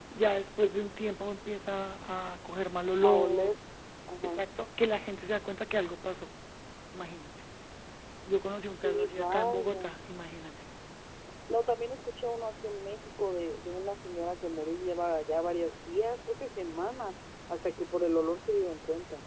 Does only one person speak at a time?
No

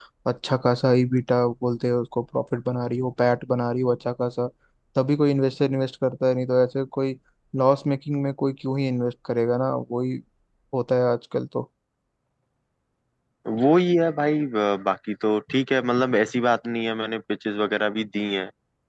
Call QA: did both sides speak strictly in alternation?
Yes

